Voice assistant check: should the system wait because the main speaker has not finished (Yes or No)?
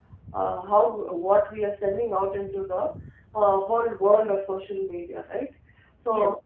Yes